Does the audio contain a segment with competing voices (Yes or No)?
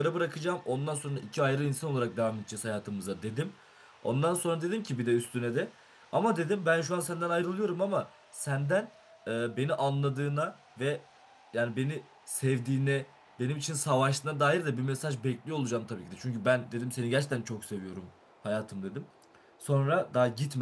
No